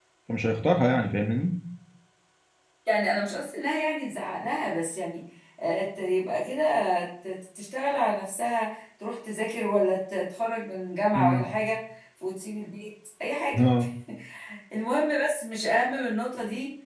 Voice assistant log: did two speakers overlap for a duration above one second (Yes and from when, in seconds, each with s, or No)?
No